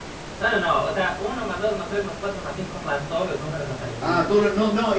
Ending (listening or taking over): taking over